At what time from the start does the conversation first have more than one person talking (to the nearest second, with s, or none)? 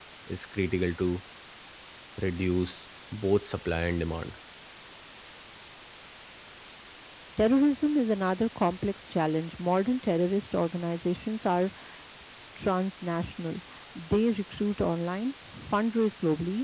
none